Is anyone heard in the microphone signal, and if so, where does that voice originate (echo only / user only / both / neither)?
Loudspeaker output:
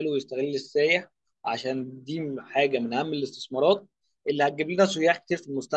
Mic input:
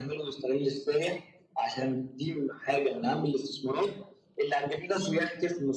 echo only